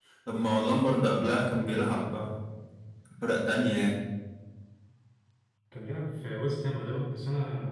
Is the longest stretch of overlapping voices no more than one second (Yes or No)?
Yes